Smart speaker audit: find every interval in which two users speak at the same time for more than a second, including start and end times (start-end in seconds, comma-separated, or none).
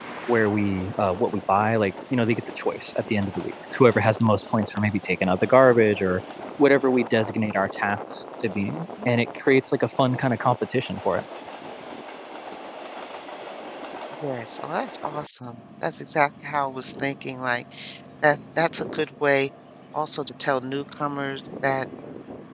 none